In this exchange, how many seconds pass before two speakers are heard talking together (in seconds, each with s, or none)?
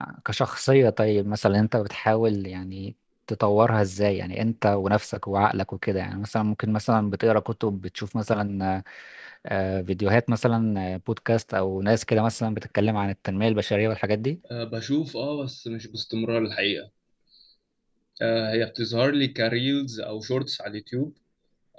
none